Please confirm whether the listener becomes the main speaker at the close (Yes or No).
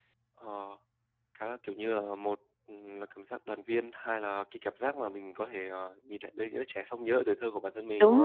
Yes